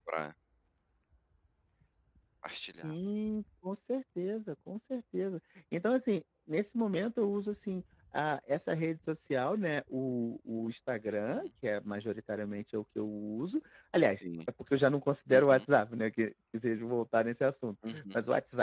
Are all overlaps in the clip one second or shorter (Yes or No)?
Yes